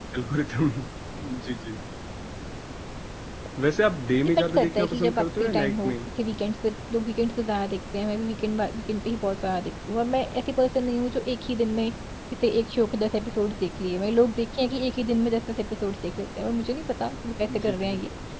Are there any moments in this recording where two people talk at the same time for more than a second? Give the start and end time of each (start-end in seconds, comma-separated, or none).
4.2-6.0